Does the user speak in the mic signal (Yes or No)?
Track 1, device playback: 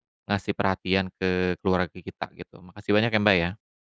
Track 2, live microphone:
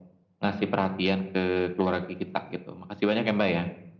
No